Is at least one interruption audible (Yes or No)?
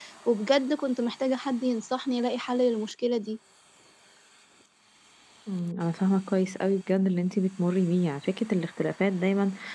No